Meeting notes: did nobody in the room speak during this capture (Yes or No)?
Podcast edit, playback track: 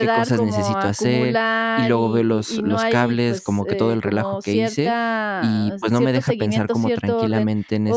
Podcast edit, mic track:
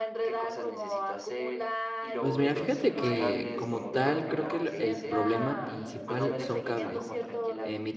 No